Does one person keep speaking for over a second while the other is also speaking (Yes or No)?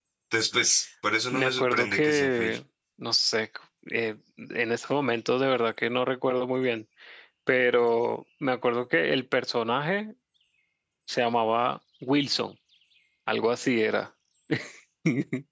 Yes